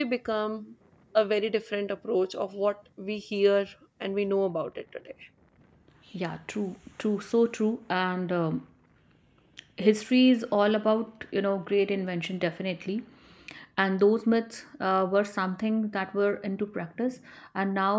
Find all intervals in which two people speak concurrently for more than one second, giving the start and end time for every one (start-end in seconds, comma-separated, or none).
none